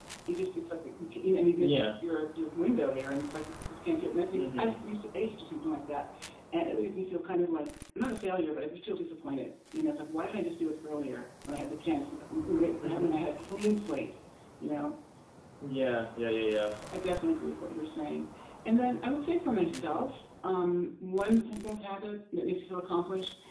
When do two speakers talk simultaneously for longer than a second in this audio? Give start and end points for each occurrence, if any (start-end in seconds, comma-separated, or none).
none